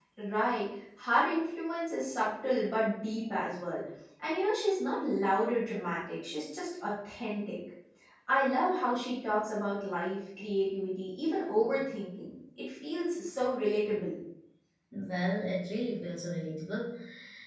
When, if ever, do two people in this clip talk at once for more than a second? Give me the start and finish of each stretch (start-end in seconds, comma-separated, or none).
none